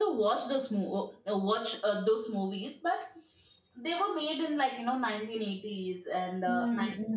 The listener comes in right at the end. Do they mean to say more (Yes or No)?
No